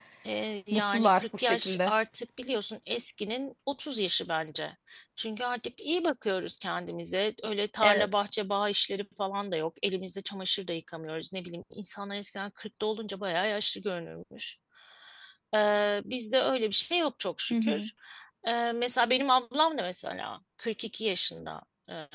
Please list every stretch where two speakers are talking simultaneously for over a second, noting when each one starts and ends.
0.7-1.9

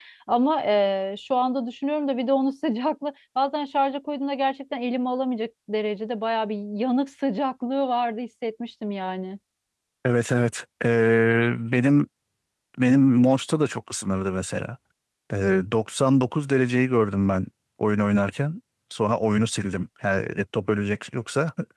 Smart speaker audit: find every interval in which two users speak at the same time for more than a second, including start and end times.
none

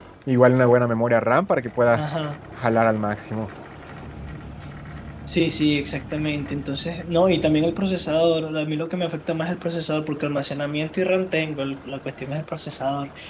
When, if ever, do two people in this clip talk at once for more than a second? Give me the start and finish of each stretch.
none

